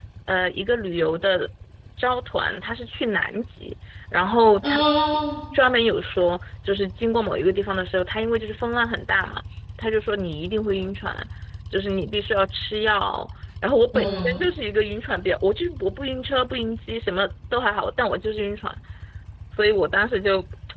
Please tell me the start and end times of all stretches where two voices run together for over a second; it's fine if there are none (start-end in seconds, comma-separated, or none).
none